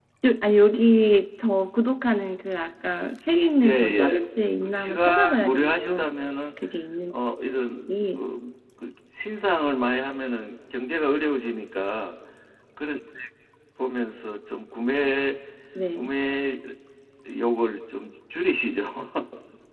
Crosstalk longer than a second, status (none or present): present